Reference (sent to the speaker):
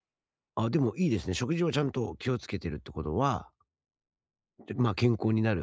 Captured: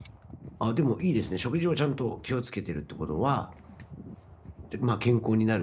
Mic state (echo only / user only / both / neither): echo only